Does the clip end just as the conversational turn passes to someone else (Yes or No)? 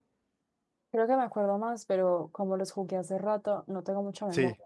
No